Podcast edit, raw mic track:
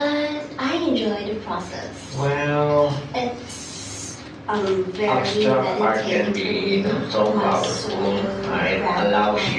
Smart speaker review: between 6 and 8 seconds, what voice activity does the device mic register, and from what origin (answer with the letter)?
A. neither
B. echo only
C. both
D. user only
B